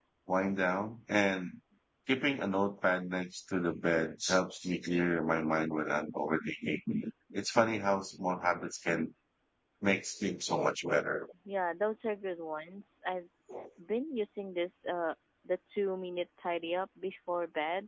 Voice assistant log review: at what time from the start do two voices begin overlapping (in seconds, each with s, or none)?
none